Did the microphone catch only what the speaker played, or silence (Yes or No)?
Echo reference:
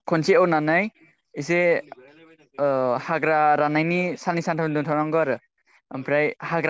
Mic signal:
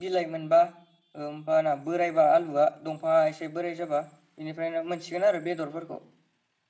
No